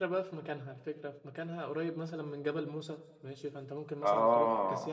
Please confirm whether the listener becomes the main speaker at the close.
No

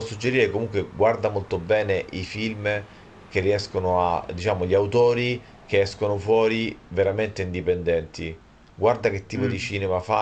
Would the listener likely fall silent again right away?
Yes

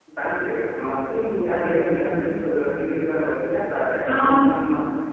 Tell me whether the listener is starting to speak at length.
No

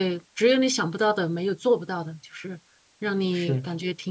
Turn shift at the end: No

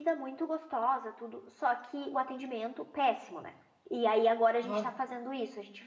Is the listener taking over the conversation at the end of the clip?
No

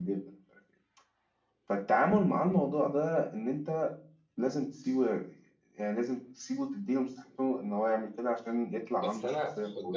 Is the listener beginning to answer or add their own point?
Yes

